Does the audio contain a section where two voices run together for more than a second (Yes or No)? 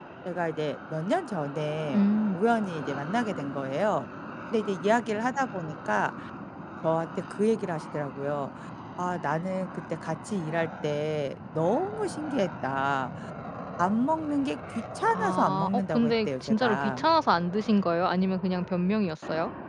Yes